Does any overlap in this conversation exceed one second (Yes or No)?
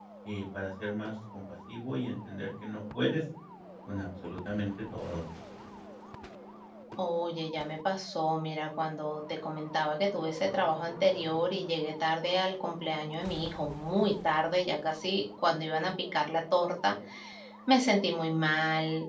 No